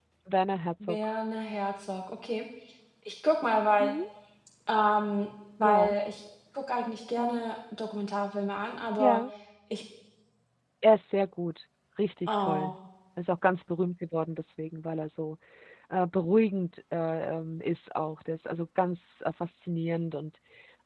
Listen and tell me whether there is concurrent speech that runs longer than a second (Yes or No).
No